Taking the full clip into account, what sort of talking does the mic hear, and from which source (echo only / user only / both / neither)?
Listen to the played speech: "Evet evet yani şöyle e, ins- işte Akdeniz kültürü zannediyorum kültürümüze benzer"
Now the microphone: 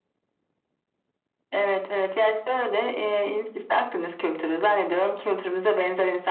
echo only